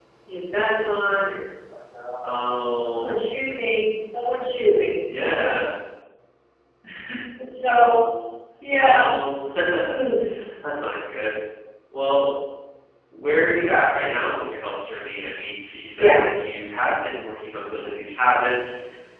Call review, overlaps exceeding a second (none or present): none